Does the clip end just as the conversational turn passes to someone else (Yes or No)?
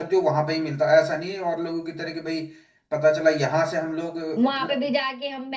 Yes